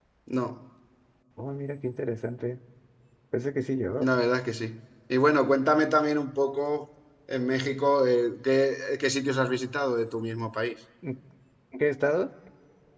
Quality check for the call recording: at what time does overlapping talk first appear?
none

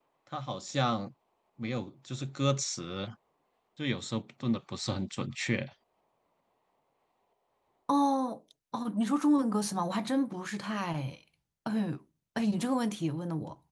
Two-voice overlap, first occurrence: none

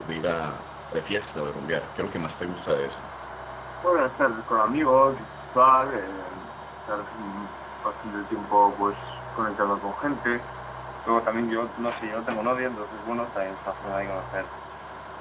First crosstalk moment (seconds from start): none

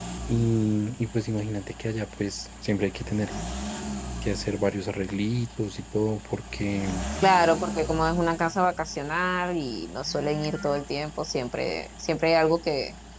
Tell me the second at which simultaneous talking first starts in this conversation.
none

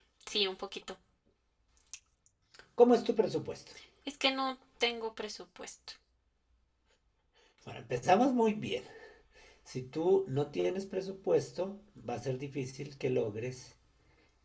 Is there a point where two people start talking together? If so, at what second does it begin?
none

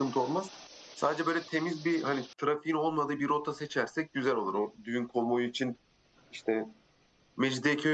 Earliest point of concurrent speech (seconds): none

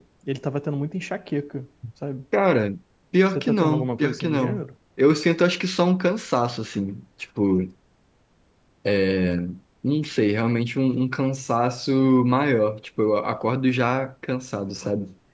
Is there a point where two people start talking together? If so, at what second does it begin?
3.3 s

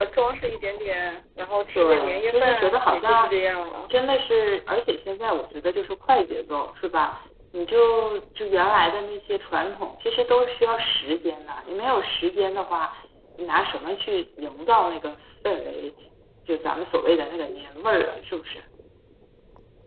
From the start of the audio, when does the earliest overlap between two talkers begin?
1.8 s

